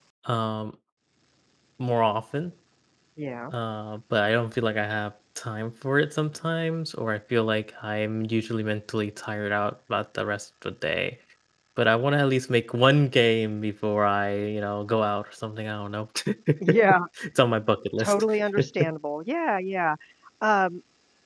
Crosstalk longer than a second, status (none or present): none